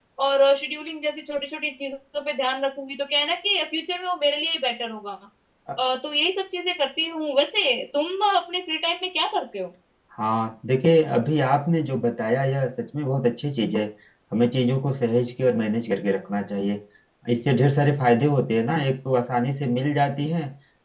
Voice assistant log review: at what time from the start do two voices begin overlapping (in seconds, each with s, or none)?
none